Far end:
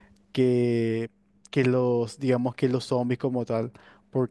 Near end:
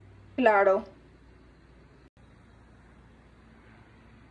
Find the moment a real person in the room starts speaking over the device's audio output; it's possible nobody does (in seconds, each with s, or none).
0.3 s